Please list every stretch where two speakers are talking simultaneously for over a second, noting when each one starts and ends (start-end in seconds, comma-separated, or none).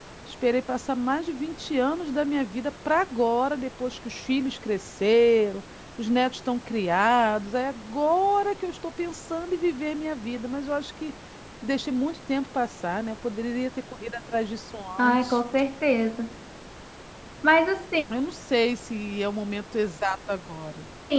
none